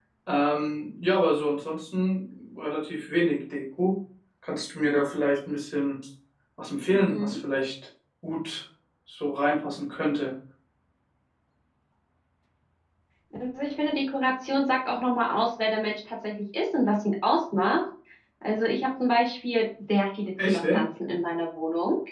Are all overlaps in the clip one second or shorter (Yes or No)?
Yes